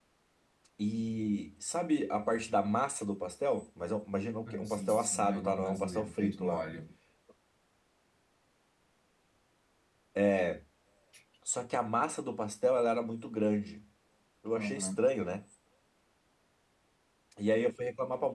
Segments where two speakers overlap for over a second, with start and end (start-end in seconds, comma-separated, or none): 4.5-6.6